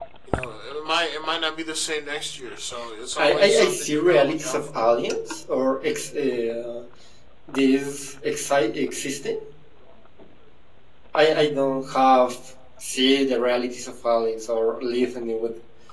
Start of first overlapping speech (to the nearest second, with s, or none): 3 s